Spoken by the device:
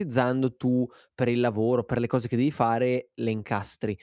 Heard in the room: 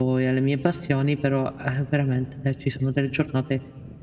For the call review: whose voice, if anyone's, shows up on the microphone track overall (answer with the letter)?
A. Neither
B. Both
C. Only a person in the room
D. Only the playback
C